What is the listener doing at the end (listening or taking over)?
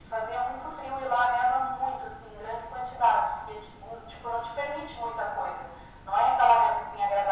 listening